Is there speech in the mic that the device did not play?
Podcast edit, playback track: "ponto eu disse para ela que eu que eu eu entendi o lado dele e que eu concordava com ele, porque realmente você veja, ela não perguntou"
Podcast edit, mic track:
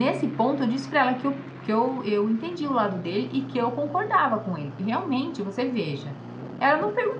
No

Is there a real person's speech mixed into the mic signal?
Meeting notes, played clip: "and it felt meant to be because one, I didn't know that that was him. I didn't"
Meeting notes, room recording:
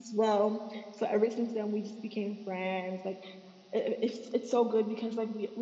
Yes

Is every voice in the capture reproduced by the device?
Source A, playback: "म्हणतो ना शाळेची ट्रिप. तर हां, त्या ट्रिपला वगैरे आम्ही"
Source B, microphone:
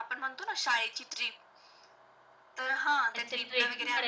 No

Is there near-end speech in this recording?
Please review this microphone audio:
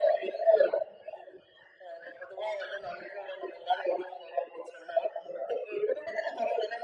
No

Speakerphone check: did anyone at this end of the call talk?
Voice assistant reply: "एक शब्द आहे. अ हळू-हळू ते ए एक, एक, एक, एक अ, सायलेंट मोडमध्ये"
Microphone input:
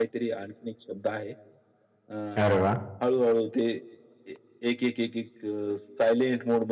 Yes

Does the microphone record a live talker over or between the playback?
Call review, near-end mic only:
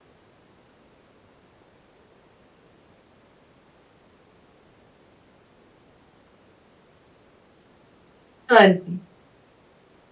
Yes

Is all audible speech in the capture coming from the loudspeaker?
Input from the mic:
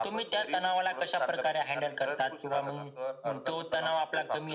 Yes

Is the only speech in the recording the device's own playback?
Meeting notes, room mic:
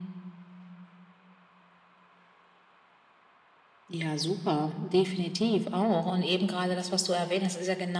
Yes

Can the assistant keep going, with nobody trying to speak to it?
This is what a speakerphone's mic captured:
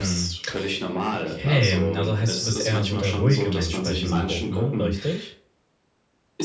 No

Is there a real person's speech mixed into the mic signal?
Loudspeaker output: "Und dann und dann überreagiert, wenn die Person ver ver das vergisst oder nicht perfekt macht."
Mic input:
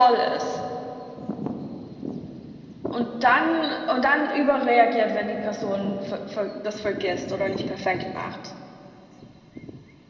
No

